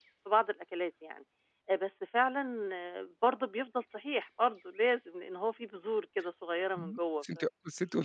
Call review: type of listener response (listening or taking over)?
taking over